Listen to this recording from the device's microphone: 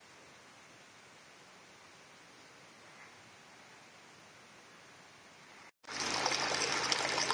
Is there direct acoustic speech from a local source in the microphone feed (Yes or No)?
No